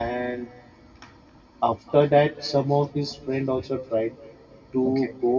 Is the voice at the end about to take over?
No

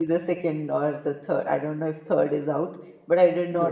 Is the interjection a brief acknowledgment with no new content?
Yes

